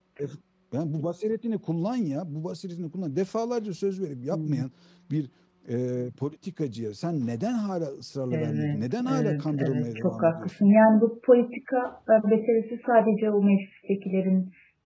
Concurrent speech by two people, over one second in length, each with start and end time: 8.3-10.5

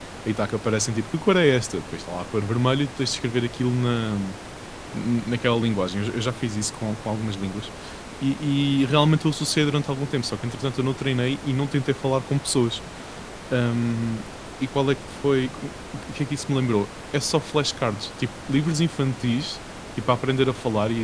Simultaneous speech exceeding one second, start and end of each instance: none

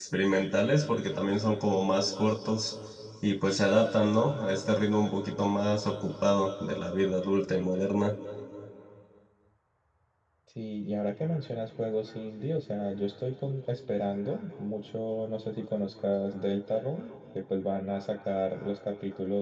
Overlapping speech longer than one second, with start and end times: none

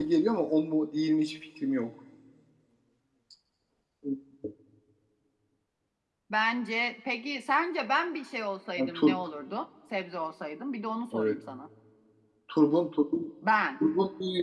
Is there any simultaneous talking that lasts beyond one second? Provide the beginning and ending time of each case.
none

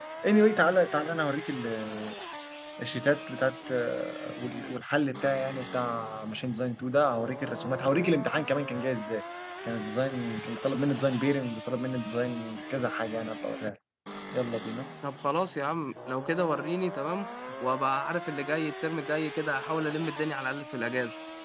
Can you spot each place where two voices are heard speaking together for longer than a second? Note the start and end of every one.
none

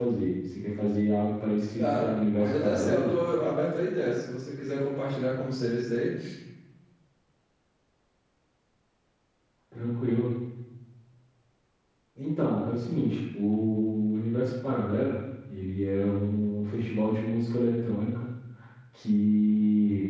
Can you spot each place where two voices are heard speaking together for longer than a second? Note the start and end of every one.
1.8-3.1

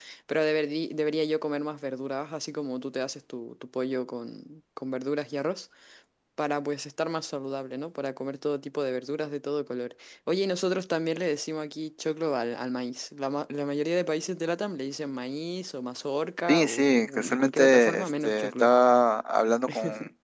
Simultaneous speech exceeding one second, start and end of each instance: 16.5-18.7

